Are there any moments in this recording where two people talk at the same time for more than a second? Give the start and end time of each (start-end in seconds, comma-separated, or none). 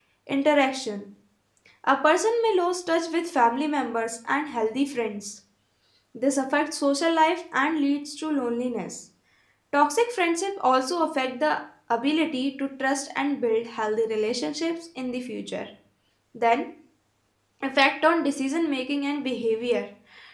none